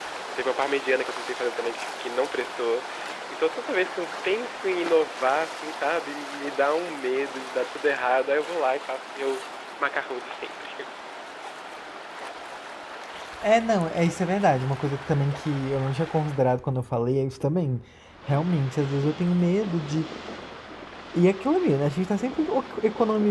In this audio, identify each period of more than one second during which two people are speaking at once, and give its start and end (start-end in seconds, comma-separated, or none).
none